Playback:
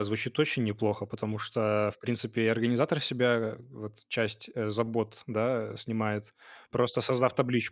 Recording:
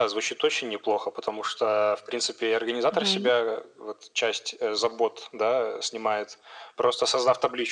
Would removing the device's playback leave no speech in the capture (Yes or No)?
No